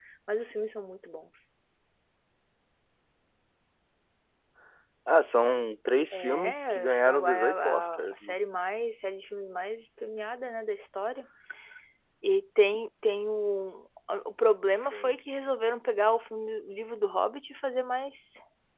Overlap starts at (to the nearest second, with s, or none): 6 s